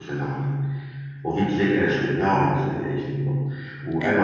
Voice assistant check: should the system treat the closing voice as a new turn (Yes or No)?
No